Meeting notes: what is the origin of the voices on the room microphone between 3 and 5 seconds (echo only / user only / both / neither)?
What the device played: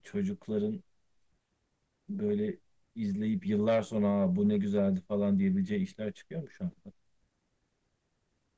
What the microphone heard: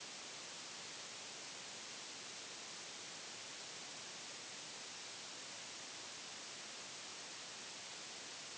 neither